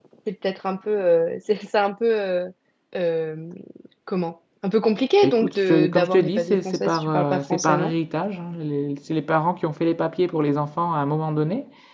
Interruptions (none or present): present